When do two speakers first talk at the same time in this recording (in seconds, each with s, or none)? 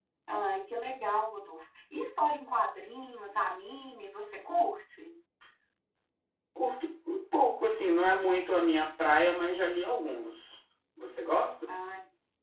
none